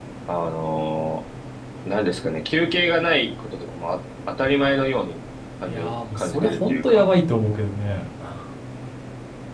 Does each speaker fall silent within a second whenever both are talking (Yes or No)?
No